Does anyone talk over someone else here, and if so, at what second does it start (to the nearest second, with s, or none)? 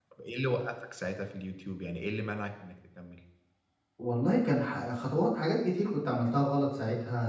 none